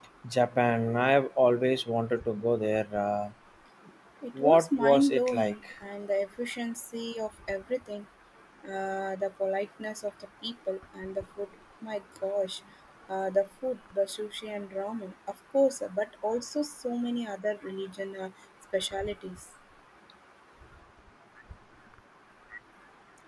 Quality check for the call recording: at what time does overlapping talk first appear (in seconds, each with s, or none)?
4.4 s